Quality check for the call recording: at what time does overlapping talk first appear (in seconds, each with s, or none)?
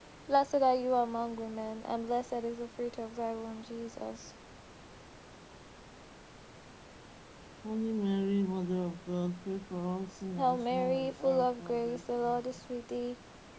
10.4 s